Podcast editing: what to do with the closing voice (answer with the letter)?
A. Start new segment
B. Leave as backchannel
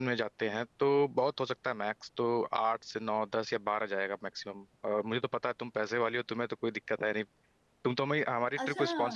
A